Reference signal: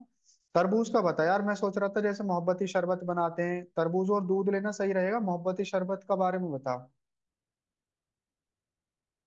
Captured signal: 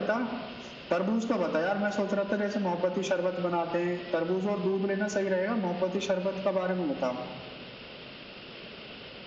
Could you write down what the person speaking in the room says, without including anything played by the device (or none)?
none